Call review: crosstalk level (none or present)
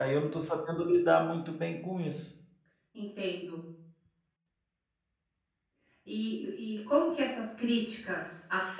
none